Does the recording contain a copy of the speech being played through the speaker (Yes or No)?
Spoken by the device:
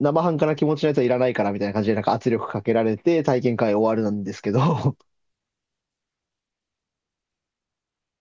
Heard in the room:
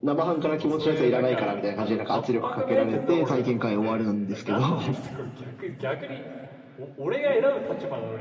Yes